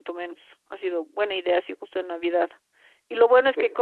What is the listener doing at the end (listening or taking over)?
listening